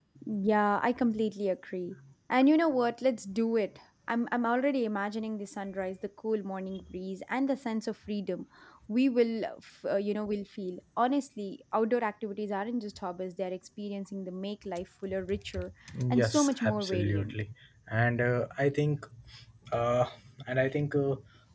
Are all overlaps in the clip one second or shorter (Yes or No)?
No